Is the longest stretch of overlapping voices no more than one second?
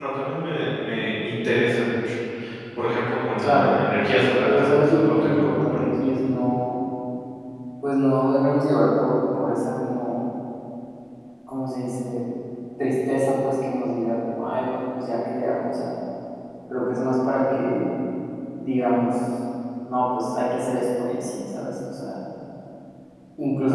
No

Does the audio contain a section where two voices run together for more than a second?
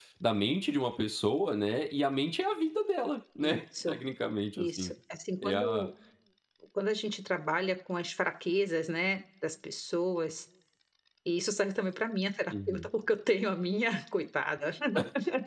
No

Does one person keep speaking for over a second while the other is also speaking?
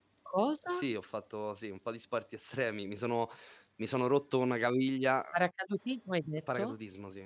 No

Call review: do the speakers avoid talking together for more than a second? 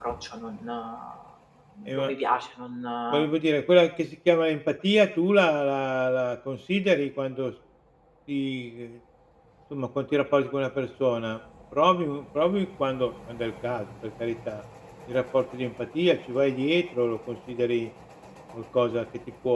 Yes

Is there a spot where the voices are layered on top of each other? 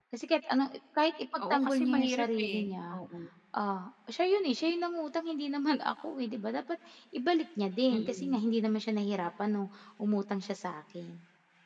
Yes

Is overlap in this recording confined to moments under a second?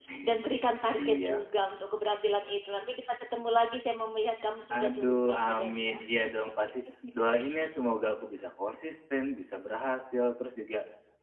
No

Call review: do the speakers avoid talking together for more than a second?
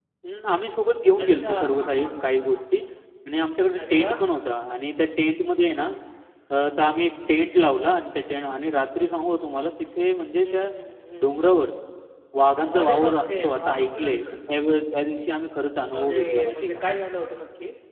No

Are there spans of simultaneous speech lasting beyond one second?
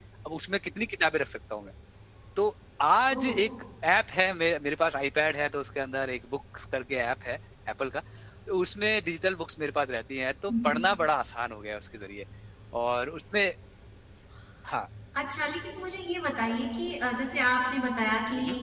No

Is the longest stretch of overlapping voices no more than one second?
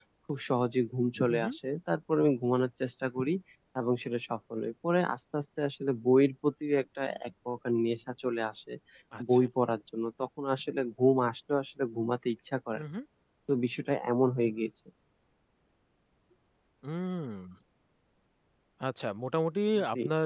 Yes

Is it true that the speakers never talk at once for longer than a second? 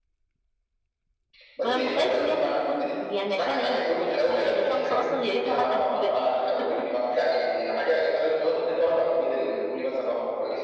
No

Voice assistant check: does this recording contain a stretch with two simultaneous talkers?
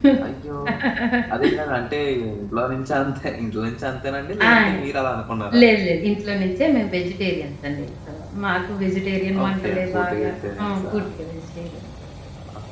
Yes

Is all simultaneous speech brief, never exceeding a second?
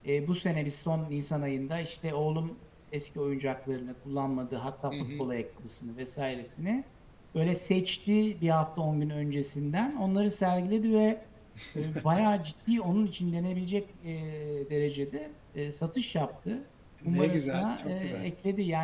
No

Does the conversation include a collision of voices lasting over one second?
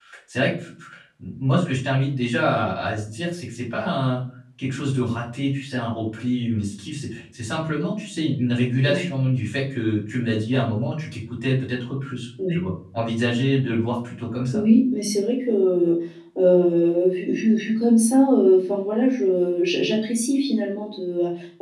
No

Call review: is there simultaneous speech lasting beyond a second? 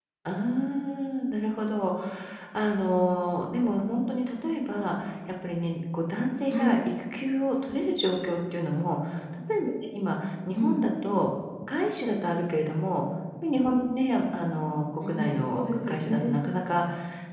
Yes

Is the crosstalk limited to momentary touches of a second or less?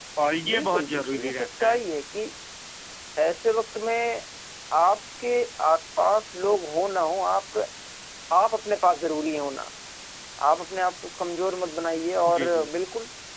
No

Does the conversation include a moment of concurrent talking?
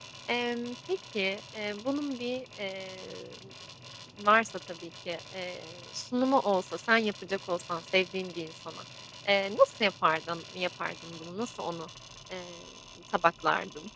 No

